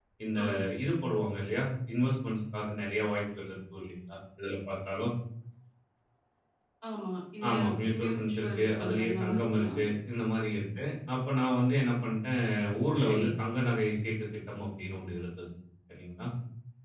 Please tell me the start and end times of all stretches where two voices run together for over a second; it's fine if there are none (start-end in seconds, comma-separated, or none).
8.0-9.7